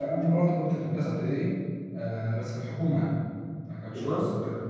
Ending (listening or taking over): listening